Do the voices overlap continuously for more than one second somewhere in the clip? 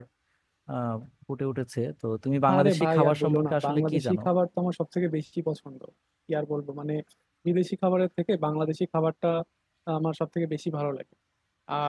Yes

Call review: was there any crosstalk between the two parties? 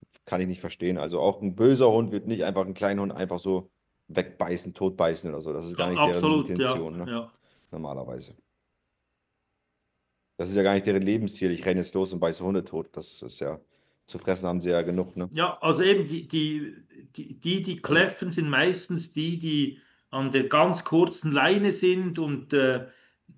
Yes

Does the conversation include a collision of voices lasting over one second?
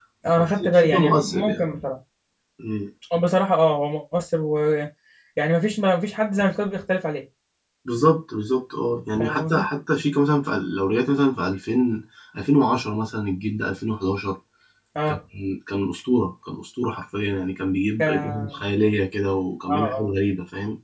Yes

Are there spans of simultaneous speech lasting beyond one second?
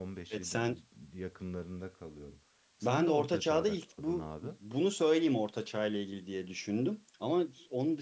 Yes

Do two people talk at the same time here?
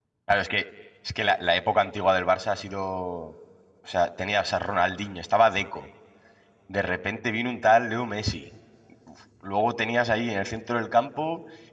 No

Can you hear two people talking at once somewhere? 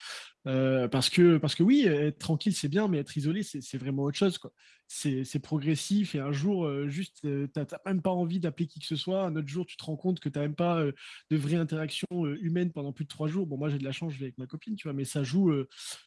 No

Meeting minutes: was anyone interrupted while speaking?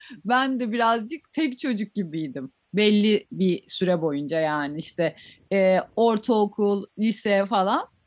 No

